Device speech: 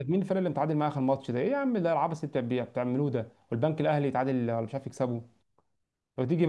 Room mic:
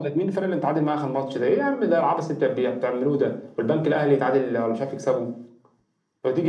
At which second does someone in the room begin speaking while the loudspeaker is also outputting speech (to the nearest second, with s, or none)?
none